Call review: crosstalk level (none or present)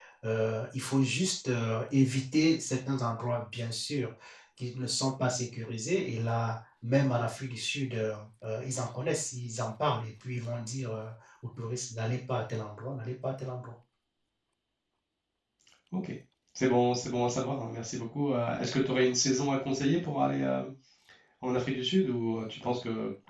none